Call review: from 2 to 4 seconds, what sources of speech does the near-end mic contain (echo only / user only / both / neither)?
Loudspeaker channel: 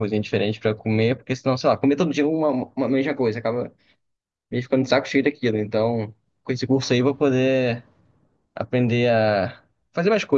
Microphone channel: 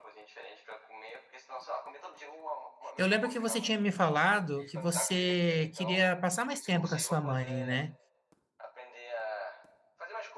both